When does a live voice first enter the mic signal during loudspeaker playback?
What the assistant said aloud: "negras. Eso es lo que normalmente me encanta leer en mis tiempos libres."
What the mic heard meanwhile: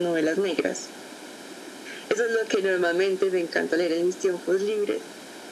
none

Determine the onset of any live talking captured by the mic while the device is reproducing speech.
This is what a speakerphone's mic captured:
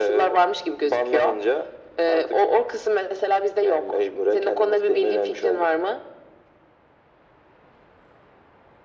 none

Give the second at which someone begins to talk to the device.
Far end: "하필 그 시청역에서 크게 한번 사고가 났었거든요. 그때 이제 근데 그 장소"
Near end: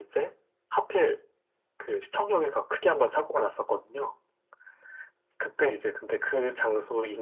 none

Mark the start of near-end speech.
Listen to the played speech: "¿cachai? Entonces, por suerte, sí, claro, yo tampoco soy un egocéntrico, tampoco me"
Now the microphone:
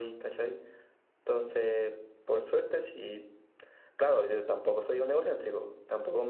none

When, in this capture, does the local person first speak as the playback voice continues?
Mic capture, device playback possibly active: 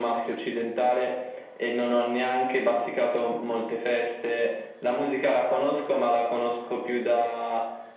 none

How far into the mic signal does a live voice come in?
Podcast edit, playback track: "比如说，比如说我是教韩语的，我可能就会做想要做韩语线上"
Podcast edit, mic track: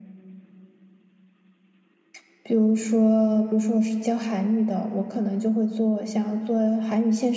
none

